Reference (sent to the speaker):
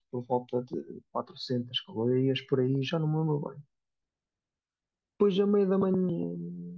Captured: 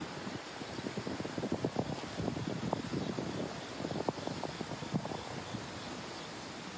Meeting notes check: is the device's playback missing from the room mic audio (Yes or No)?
Yes